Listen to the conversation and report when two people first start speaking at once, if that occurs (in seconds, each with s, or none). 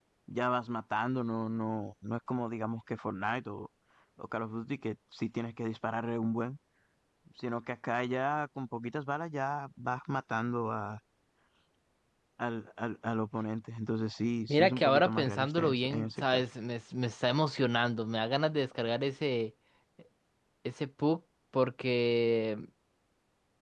14.5 s